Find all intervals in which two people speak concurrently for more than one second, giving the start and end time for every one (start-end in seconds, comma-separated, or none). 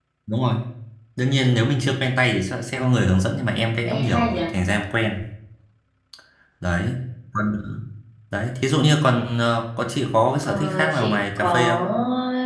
10.4-11.8